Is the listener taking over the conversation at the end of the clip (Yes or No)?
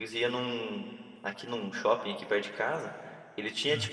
No